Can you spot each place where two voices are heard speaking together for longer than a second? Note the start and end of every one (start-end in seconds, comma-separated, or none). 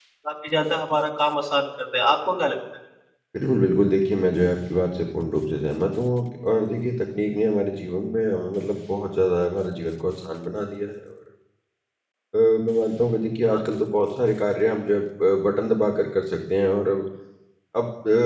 none